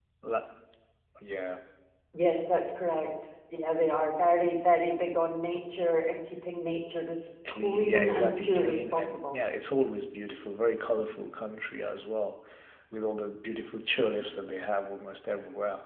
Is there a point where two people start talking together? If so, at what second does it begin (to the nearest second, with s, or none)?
7 s